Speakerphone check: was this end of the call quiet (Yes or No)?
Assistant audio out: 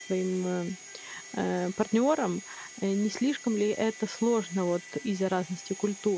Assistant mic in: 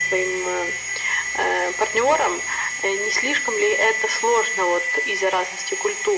Yes